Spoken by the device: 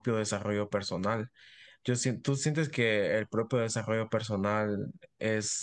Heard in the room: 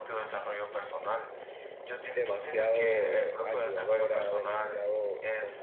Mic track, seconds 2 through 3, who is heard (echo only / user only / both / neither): both